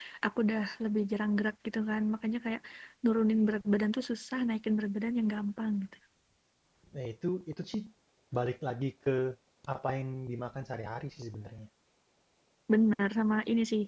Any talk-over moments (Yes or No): No